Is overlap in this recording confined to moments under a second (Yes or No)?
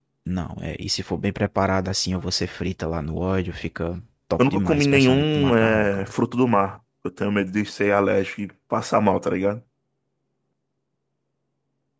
No